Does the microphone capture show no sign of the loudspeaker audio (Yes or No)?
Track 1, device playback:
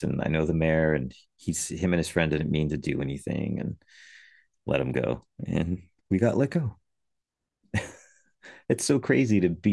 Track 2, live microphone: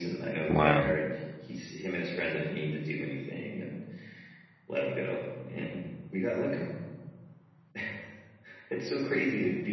No